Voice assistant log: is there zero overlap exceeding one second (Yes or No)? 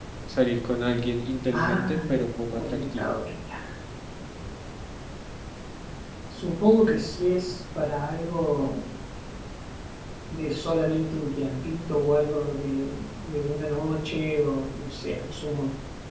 No